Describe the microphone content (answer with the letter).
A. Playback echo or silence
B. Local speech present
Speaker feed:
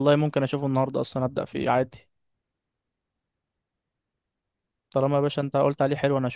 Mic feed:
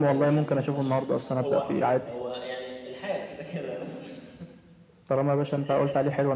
B